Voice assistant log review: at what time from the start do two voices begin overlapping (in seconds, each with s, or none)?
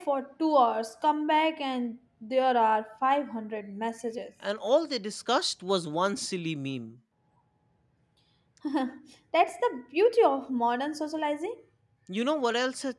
none